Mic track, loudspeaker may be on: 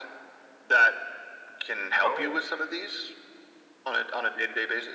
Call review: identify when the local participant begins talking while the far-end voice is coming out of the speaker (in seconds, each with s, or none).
1.9 s